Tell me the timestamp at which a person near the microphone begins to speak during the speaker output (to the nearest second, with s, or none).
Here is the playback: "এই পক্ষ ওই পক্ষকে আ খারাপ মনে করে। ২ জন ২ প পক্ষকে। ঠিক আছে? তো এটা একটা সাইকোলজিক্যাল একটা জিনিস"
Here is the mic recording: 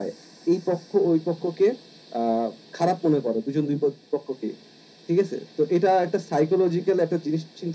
none